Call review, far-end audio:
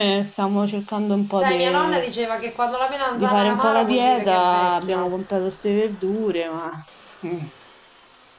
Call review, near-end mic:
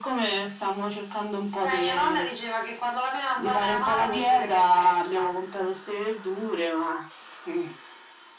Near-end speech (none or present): none